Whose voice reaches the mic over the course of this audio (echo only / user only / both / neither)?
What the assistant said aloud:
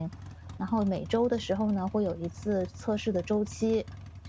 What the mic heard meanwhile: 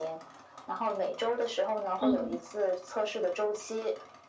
both